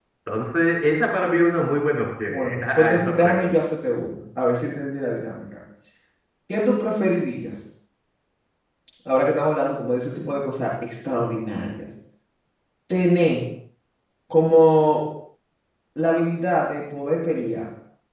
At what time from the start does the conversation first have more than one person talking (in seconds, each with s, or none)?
2.3 s